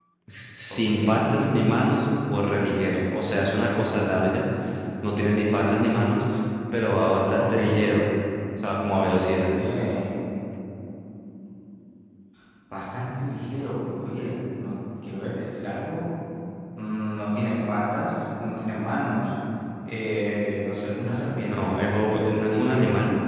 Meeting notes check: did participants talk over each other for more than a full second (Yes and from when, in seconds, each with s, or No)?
No